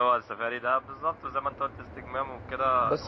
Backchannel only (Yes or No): No